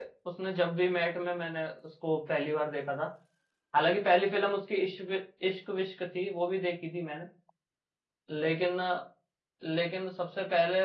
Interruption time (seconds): none

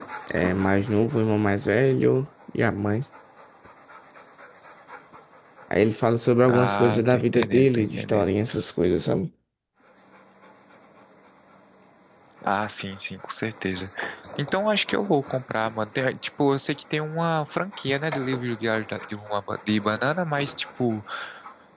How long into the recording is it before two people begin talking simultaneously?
6.5 s

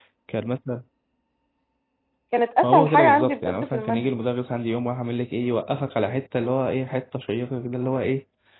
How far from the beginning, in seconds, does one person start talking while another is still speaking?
2.6 s

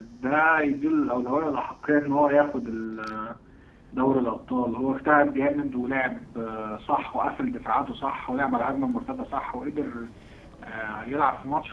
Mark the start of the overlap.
none

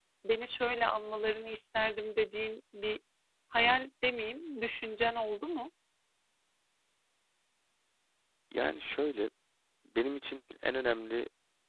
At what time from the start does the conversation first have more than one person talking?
none

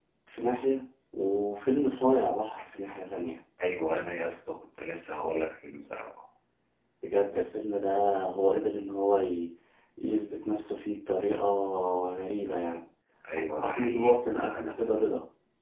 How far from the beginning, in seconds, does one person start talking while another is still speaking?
13.4 s

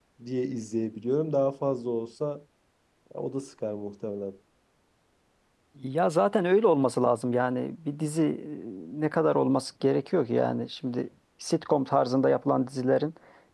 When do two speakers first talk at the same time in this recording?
none

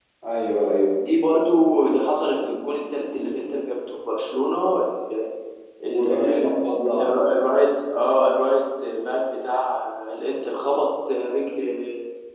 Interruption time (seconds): 5.8 s

